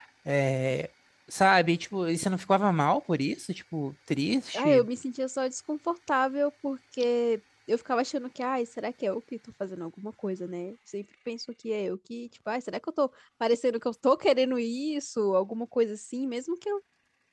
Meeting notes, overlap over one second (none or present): none